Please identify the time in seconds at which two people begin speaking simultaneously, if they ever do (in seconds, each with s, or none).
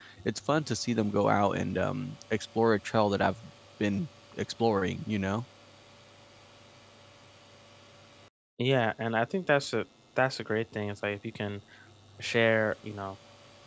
none